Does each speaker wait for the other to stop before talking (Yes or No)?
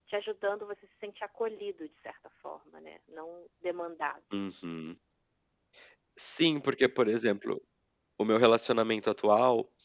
Yes